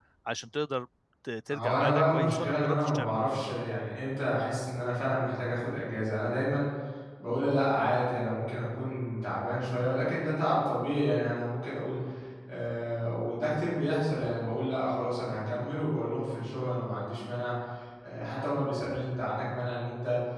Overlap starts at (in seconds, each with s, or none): 1.5 s